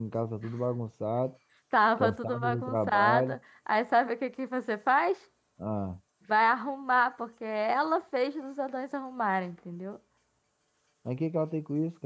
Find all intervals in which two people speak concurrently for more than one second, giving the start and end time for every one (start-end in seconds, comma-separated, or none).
2.0-3.4